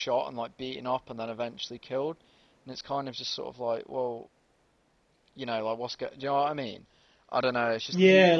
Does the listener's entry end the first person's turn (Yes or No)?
Yes